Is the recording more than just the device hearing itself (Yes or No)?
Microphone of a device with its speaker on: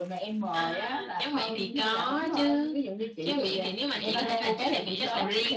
Yes